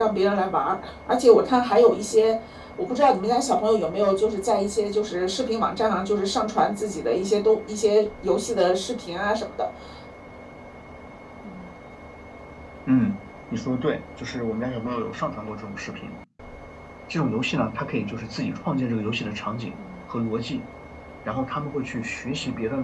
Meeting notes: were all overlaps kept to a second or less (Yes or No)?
Yes